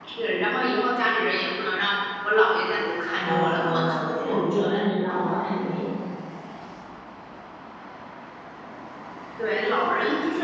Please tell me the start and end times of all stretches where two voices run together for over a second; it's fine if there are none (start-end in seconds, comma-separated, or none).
3.1-4.4